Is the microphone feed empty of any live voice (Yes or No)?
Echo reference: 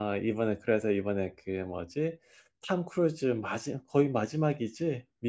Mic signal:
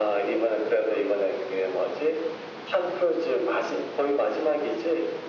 Yes